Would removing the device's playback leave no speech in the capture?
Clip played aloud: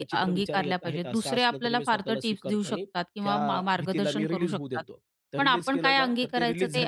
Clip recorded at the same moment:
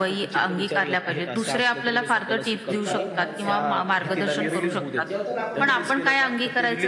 No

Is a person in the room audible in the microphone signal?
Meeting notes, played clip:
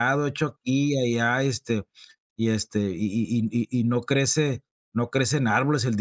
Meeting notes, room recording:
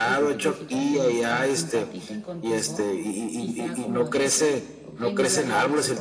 Yes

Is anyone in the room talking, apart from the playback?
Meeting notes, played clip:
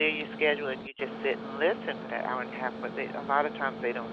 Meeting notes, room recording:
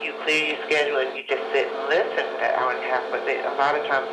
No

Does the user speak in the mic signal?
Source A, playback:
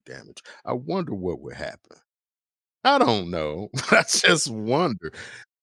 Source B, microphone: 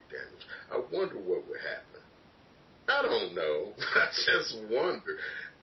No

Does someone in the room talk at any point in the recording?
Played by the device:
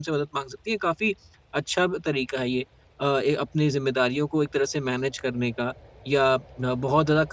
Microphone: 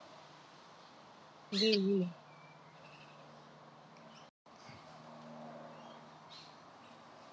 Yes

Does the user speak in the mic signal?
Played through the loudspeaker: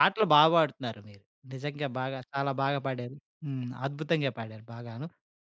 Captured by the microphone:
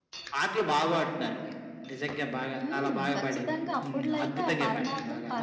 Yes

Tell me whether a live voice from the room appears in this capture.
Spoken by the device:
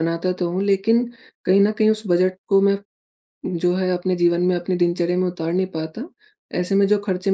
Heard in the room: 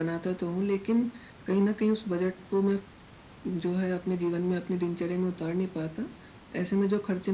No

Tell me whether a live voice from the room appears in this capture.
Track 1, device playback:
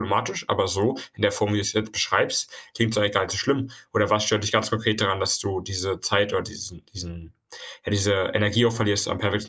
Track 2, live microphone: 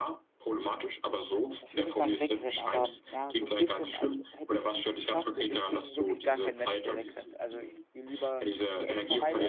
Yes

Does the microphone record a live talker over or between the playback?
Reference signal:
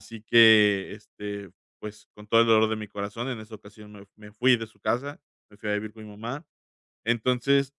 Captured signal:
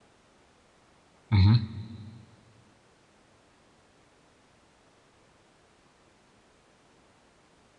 Yes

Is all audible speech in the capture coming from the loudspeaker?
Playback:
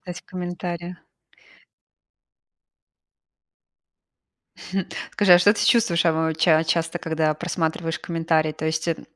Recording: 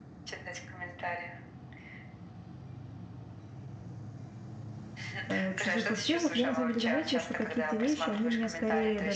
No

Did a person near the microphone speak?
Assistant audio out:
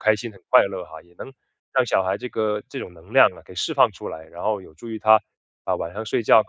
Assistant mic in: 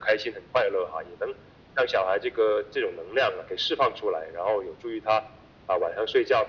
No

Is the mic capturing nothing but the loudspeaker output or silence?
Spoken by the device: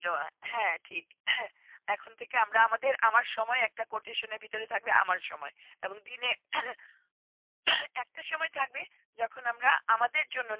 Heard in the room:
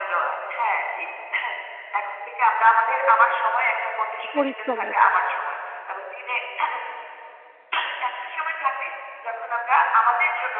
No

